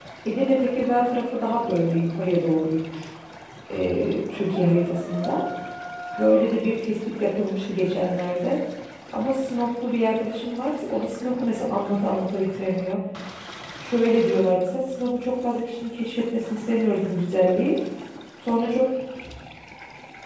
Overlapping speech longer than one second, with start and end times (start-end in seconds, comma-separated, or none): none